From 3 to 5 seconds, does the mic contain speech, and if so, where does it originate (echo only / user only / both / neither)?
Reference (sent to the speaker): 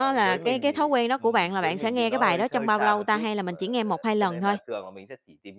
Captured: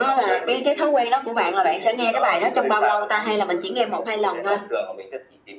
echo only